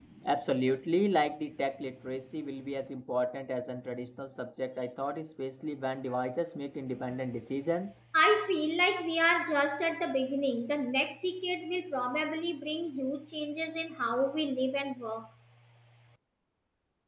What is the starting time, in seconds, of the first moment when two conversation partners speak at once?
none

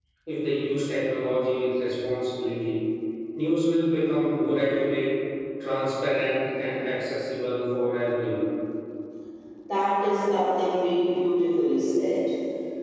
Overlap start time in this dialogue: none

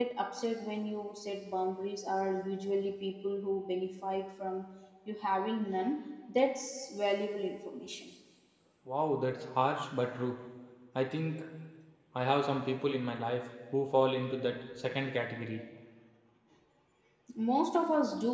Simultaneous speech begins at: none

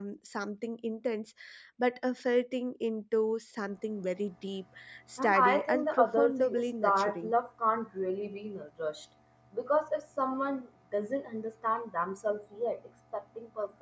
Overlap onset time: 5 s

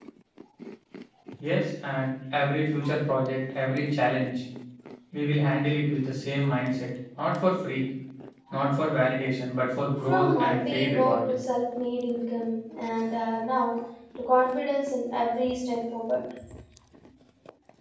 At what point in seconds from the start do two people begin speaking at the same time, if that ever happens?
10 s

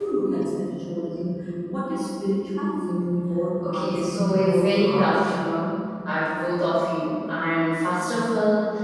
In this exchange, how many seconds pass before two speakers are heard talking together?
4 s

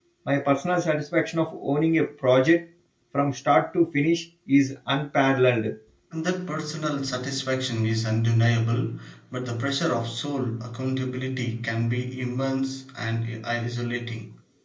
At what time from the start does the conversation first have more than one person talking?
none

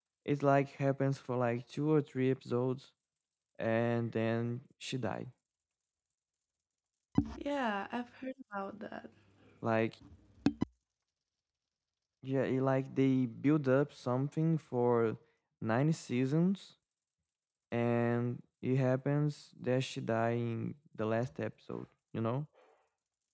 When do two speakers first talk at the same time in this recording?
none

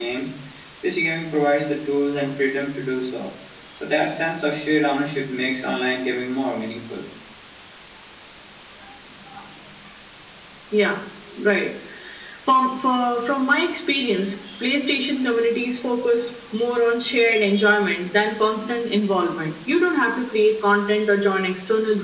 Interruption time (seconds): none

